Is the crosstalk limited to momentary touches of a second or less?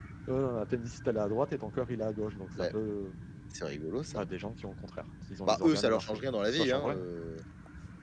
No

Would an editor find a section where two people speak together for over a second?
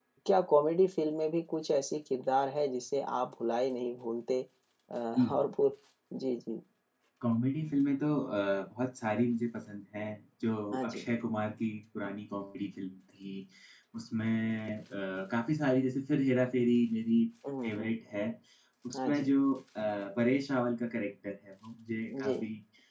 No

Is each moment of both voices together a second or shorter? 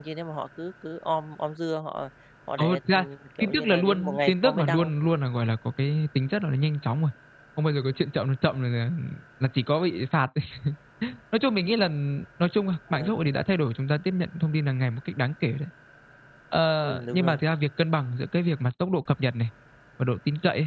No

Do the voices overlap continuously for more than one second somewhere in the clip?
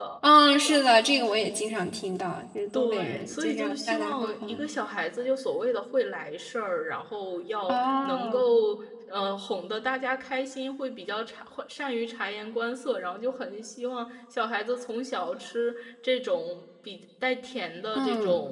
Yes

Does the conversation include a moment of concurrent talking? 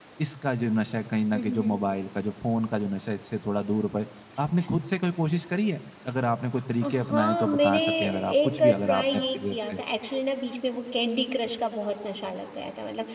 Yes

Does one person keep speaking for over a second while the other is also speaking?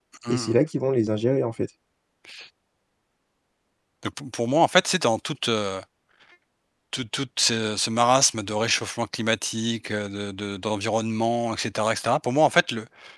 No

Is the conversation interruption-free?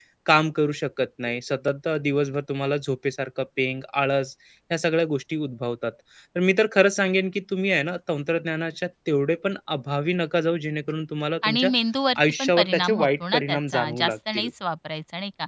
No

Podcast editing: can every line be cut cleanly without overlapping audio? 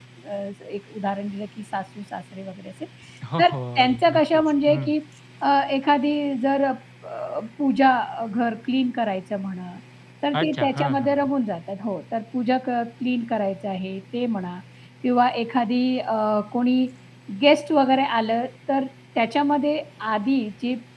No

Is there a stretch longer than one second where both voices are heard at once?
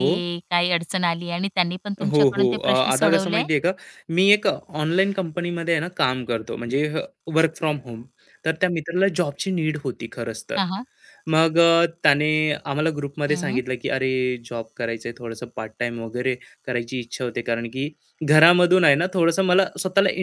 Yes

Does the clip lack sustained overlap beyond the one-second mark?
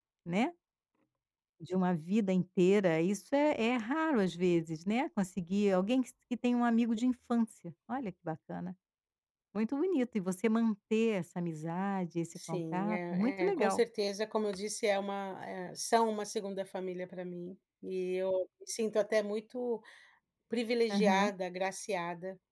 No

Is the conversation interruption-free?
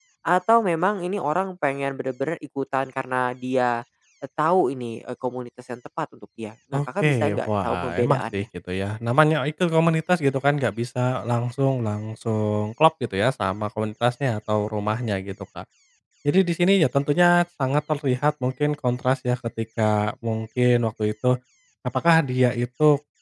No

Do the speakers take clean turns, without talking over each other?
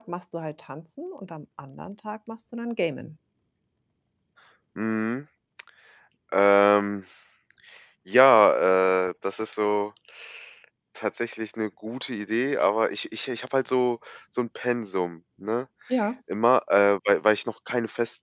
Yes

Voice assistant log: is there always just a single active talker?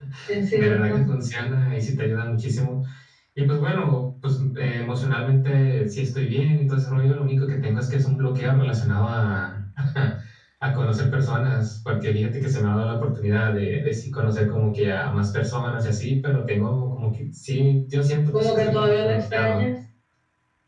No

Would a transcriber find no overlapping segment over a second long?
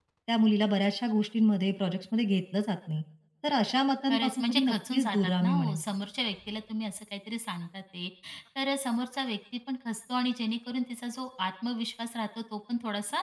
No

